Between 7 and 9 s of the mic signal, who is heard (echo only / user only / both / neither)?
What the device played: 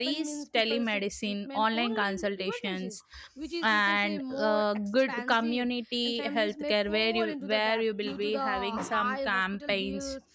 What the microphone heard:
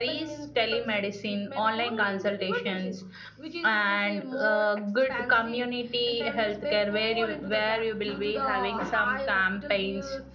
echo only